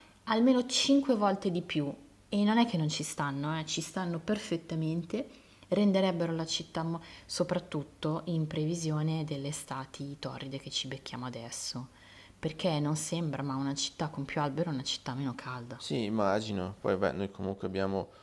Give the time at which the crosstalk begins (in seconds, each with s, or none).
none